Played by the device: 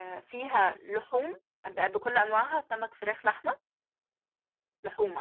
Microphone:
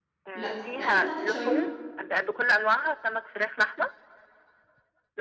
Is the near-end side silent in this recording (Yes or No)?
No